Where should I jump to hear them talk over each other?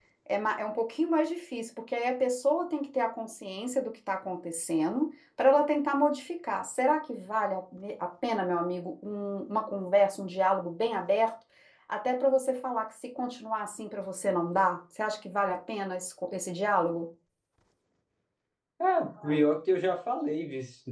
none

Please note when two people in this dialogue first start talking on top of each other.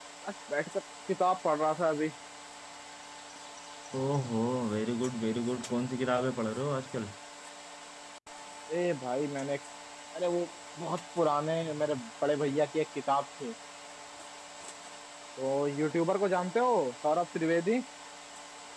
none

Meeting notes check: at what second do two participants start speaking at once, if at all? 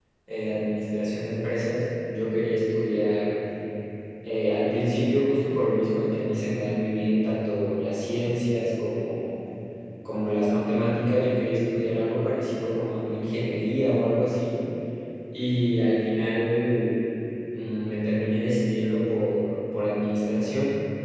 none

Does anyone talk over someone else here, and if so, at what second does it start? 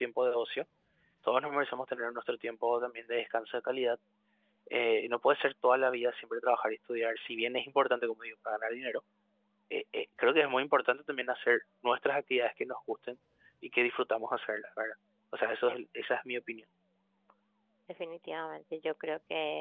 none

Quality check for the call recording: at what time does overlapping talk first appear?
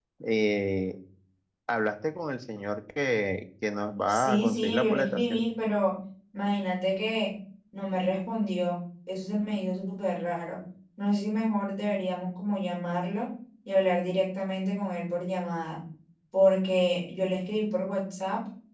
4 s

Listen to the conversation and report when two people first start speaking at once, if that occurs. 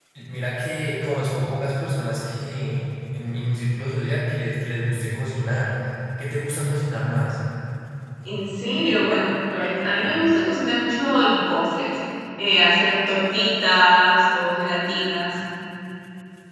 none

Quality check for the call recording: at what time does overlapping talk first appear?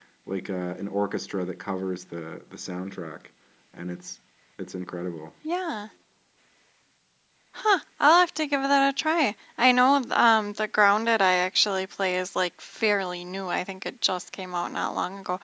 none

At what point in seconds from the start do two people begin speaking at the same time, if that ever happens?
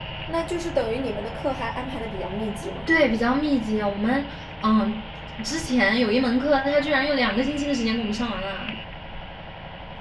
none

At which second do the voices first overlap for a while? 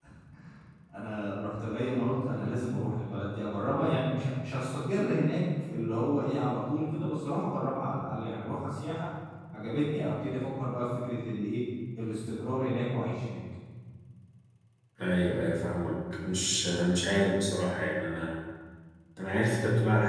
none

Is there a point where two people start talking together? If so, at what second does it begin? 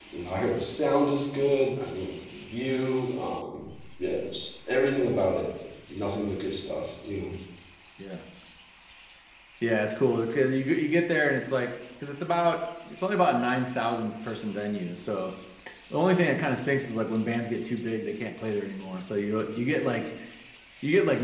none

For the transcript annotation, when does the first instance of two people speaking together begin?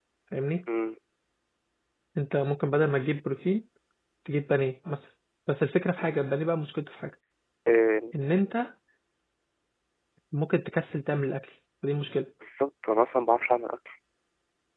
none

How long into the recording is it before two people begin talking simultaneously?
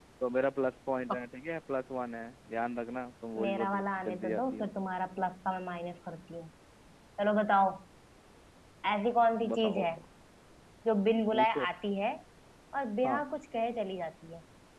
3 s

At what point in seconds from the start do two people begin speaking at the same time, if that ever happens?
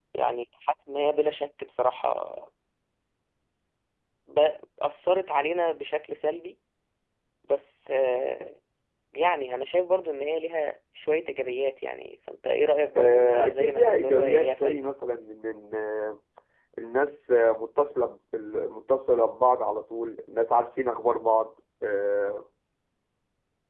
13 s

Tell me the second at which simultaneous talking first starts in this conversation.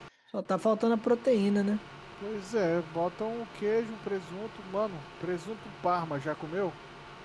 none

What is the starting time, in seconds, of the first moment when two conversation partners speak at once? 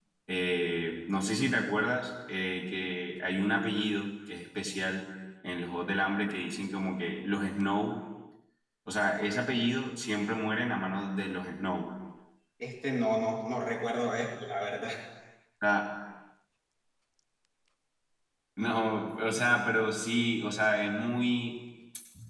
none

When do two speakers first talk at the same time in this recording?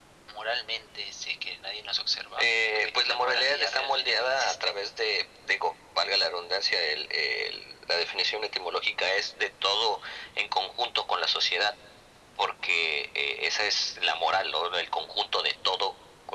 2 s

